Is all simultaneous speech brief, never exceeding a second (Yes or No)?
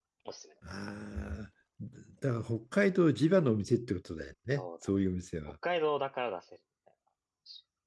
Yes